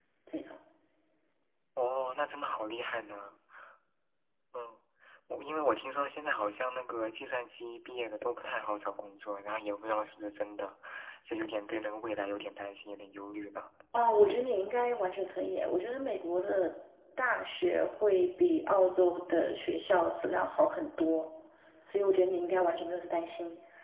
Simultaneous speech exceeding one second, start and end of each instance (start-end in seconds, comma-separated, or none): none